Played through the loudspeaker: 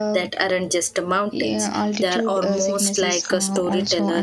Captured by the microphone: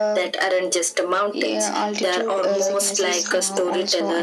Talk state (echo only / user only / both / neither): both